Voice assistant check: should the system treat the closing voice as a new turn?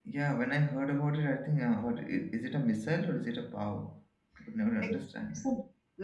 Yes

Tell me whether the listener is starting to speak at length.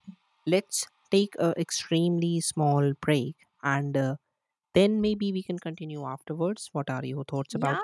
Yes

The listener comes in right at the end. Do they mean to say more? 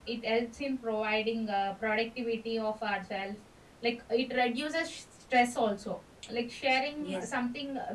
No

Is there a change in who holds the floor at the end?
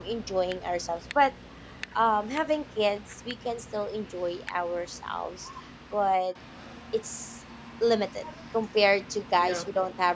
No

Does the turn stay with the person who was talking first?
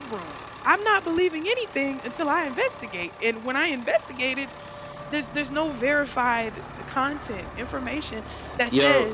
Yes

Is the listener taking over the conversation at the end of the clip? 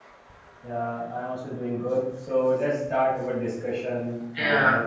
No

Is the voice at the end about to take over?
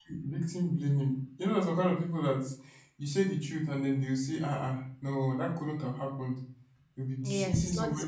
Yes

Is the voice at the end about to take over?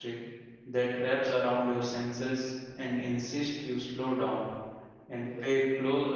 No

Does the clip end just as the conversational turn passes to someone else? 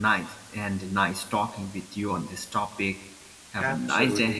Yes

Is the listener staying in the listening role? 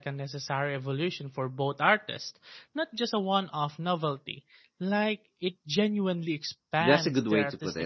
No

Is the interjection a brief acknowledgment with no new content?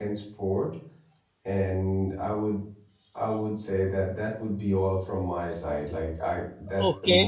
No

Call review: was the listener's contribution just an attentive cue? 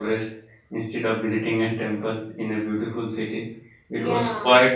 Yes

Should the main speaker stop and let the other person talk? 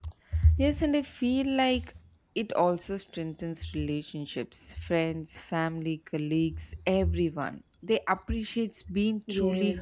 Yes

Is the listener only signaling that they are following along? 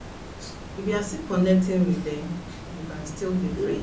Yes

